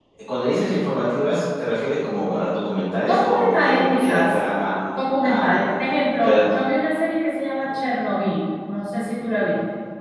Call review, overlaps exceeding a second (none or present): present